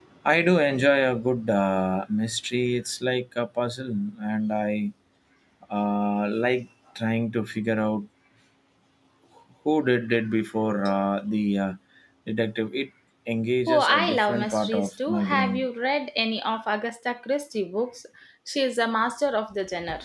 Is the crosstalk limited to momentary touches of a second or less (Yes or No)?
No